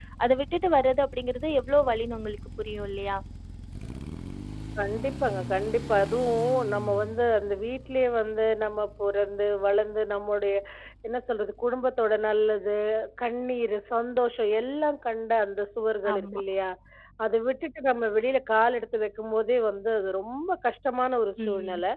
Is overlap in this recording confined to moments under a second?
Yes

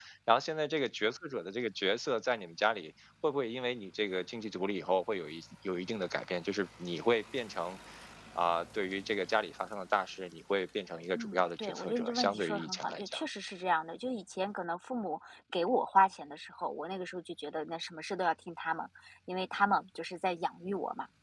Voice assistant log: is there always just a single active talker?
No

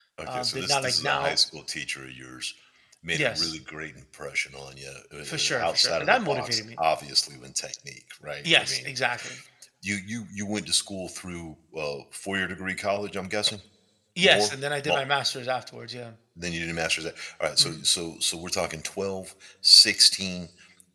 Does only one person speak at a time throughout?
No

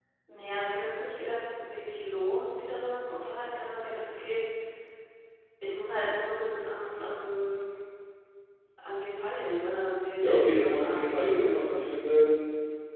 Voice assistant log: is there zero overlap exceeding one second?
No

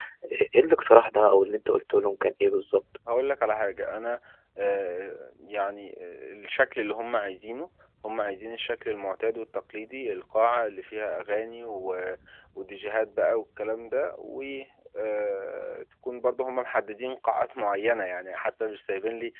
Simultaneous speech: No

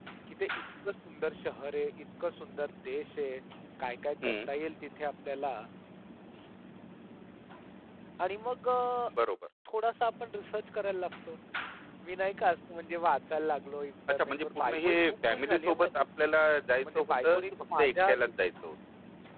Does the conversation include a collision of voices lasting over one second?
Yes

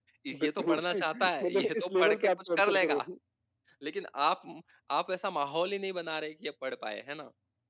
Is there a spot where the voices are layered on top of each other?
Yes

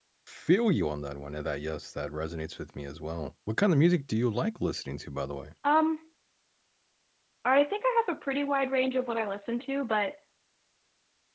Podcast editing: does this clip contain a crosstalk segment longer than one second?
No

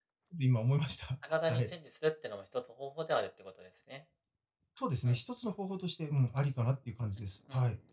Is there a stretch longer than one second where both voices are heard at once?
No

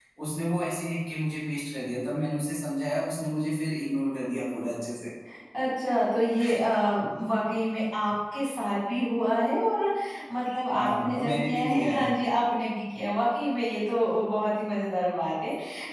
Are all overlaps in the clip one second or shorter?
No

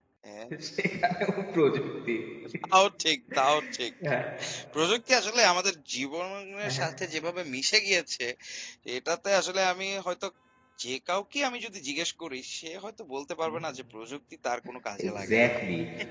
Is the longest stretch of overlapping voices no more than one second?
Yes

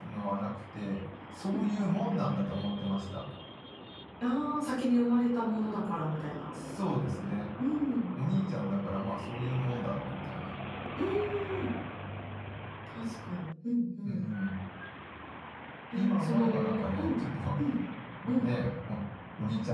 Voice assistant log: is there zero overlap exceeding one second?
No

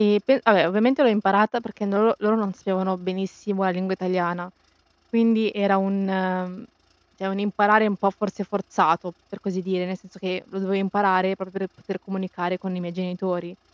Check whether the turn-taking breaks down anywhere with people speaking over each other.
No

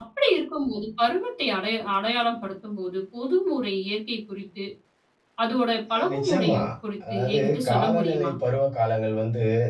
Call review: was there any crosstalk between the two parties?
Yes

